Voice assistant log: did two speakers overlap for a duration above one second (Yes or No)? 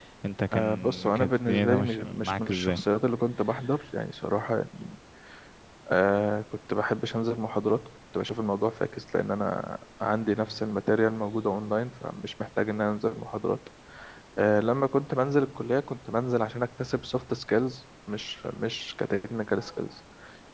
Yes